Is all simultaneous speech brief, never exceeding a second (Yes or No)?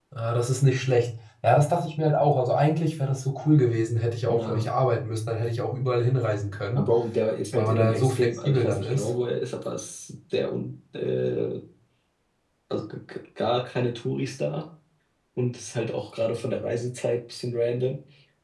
No